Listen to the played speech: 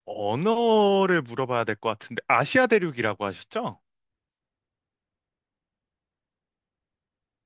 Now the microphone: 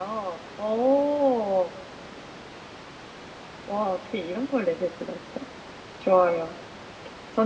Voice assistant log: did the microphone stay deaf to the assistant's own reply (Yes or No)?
Yes